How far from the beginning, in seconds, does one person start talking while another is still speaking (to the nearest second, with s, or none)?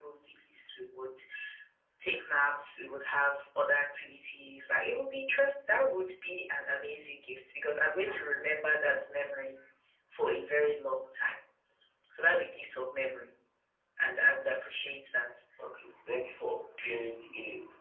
none